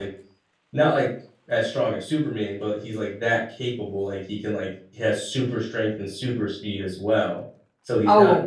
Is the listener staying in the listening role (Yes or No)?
Yes